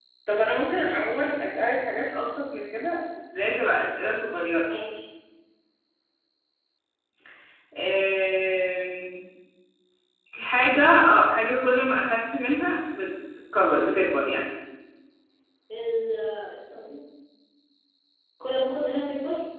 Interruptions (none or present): none